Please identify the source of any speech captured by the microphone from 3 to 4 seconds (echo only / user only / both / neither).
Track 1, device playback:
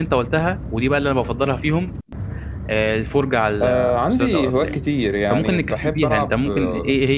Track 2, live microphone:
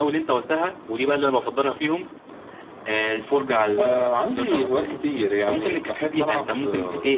echo only